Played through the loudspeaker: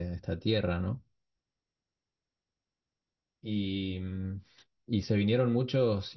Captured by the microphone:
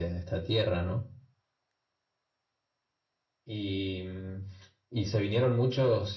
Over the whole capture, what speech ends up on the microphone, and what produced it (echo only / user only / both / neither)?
echo only